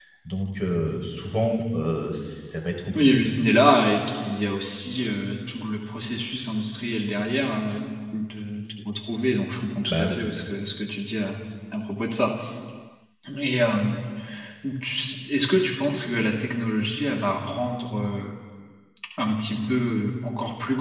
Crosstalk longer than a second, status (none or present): none